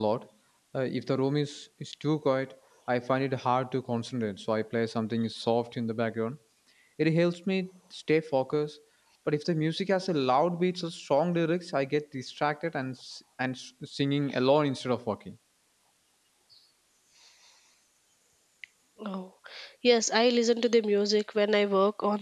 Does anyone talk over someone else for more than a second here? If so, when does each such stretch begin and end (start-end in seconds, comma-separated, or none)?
none